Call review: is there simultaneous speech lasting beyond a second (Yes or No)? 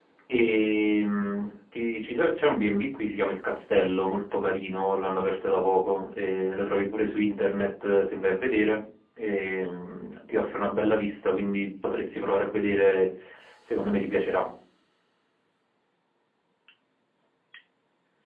No